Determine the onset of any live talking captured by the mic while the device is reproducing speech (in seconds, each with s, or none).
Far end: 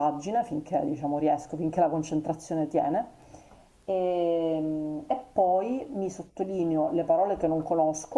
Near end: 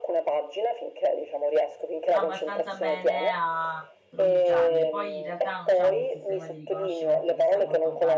2.1 s